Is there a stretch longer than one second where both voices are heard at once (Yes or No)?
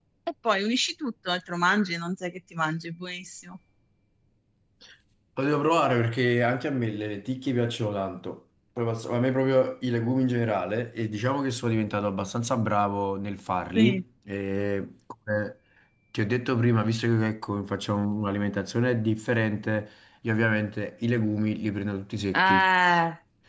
No